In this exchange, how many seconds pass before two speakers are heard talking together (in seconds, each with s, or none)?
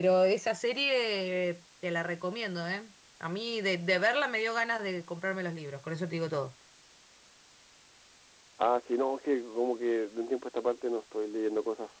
none